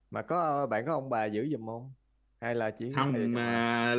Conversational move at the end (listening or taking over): taking over